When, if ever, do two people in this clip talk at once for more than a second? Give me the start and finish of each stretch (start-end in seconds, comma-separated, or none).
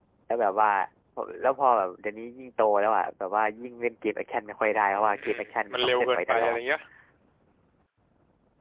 5.0-6.6